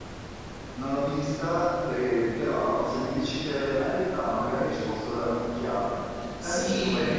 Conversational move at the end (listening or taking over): taking over